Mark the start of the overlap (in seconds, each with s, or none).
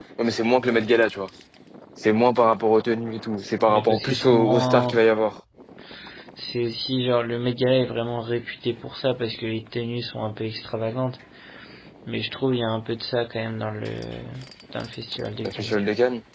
3.7 s